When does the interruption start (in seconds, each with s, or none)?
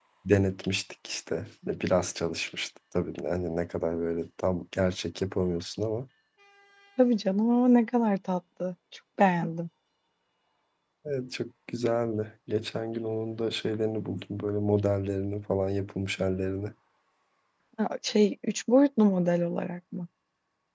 none